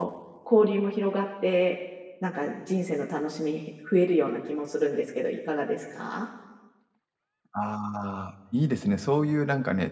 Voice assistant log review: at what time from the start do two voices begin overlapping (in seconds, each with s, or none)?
none